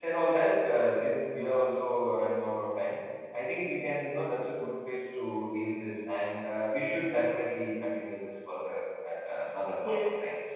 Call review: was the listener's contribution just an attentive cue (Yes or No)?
No